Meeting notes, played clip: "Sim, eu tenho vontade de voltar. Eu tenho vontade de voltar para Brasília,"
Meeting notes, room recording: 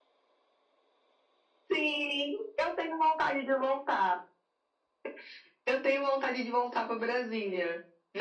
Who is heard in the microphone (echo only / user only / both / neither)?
echo only